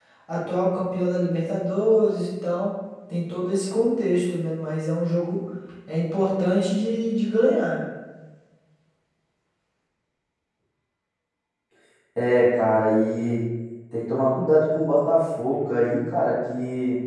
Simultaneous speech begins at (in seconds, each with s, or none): none